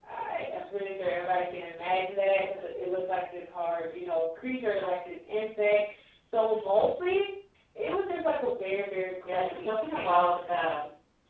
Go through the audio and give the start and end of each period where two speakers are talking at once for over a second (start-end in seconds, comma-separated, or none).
9.2-10.5